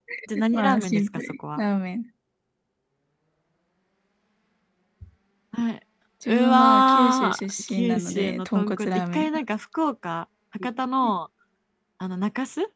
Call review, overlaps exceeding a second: present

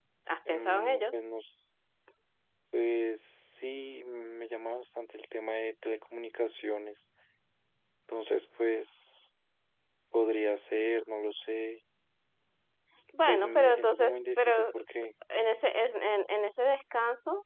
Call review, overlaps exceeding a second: present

